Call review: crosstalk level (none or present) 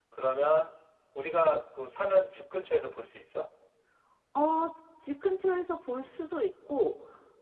none